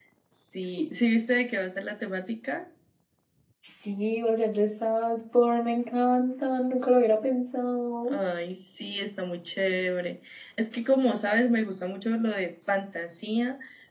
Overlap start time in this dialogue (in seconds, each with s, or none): none